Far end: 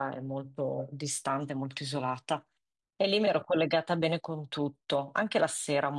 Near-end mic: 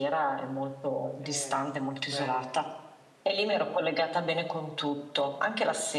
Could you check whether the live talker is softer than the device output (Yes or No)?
Yes